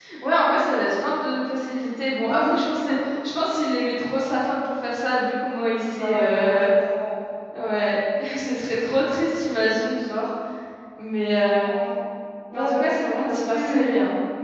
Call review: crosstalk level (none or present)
present